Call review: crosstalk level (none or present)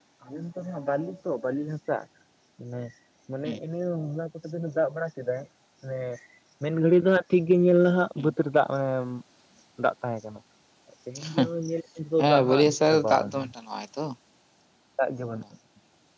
present